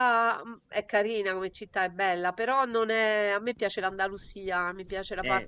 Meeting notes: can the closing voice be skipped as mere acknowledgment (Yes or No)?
Yes